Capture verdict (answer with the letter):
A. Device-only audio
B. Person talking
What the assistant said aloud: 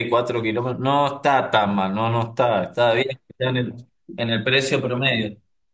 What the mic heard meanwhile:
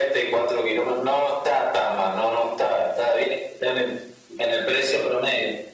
A